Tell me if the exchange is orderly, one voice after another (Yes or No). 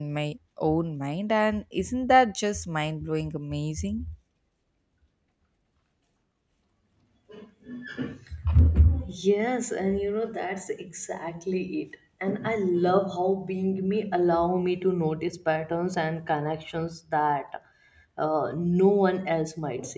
Yes